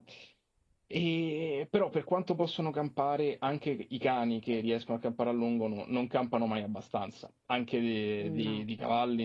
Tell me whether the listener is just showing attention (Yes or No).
Yes